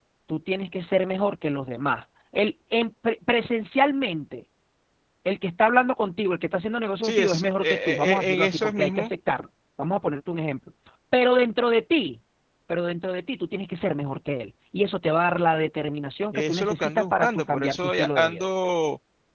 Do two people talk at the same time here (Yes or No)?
Yes